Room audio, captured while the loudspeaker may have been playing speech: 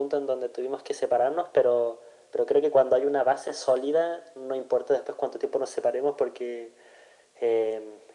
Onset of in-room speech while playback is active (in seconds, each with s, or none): none